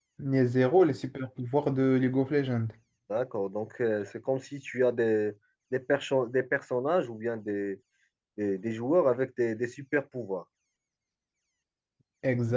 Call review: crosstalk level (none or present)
none